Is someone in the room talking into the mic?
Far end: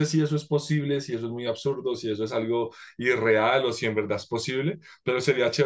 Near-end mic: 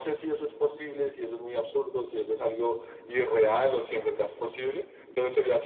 No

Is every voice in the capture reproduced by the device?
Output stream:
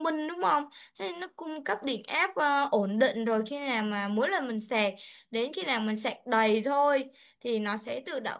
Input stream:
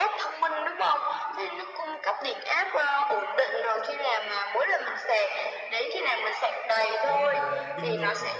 No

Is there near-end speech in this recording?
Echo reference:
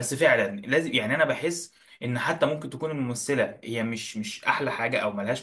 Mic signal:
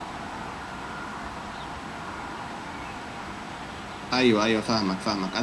Yes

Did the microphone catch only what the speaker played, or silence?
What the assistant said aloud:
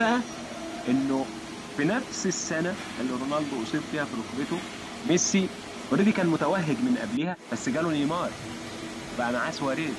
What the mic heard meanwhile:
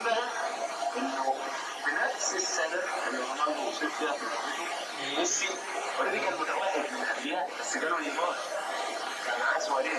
No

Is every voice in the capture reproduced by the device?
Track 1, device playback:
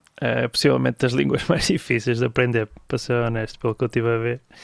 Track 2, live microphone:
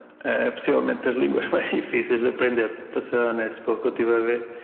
Yes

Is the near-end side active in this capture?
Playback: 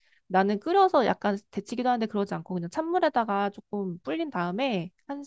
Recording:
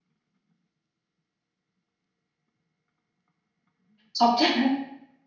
Yes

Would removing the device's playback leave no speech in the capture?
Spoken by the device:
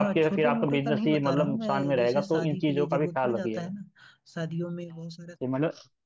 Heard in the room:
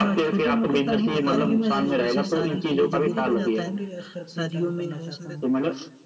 No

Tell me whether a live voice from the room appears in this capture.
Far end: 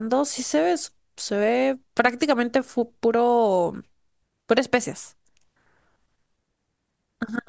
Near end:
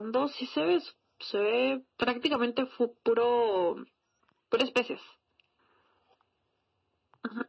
No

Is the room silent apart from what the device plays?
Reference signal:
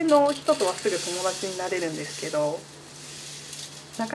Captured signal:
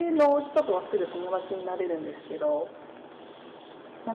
Yes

